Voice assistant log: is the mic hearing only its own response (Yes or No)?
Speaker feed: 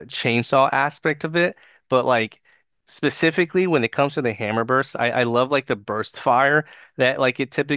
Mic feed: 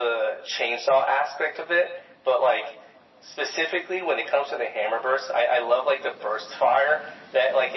Yes